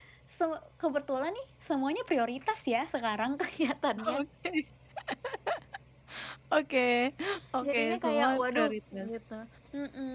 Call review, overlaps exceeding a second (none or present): present